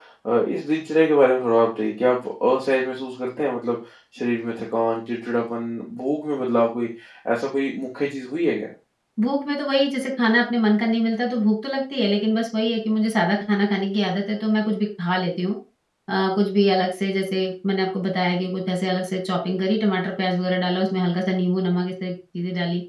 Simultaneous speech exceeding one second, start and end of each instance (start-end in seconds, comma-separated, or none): none